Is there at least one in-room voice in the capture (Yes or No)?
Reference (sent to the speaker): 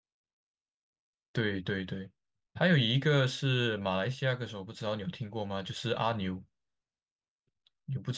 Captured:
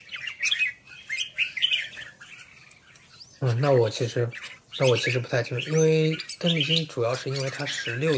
Yes